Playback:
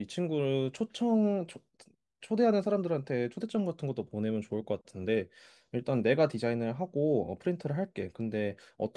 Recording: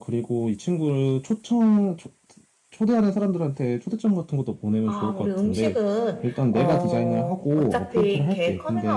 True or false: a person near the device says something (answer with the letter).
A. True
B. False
A